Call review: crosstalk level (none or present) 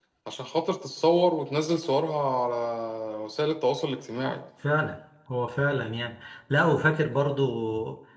none